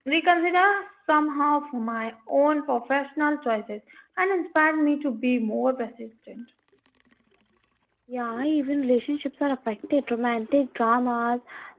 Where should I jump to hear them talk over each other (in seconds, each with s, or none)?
none